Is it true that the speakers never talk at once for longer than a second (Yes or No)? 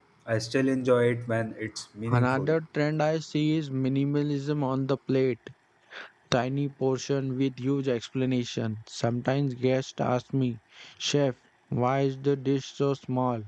Yes